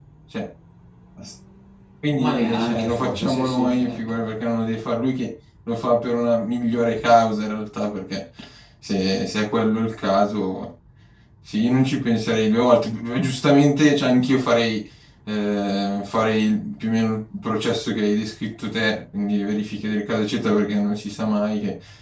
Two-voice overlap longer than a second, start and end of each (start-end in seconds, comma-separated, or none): 2.2-4.2